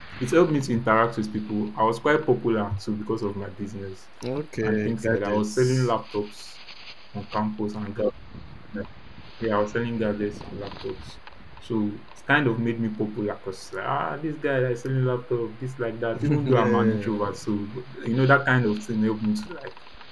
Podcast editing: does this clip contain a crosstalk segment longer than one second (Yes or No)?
Yes